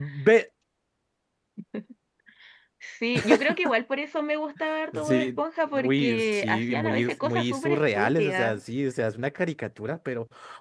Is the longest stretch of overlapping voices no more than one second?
No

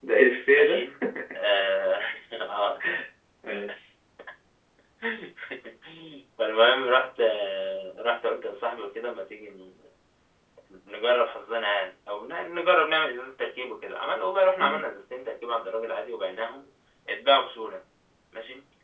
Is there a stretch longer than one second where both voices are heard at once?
No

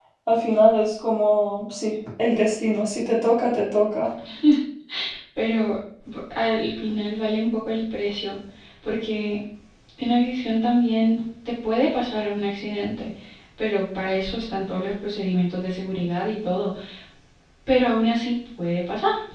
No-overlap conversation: Yes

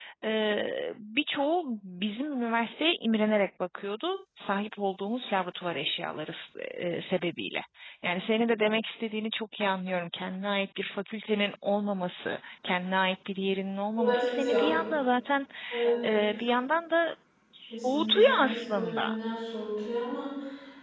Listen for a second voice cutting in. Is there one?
Yes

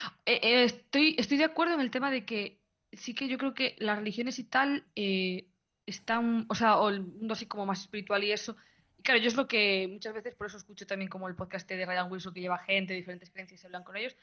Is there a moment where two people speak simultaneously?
No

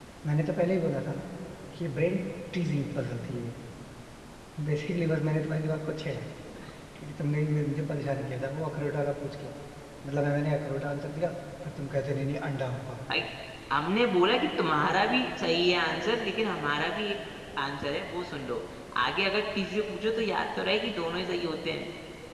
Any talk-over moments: No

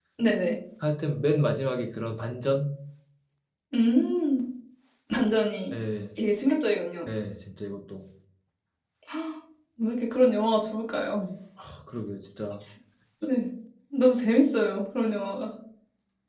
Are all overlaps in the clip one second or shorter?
Yes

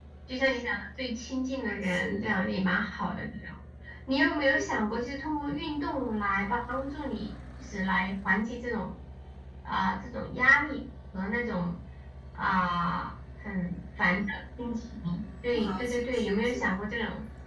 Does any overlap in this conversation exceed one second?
Yes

